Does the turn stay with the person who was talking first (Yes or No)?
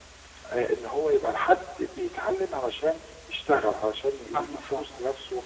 Yes